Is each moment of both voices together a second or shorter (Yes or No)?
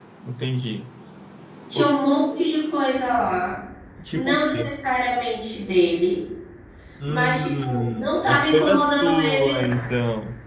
No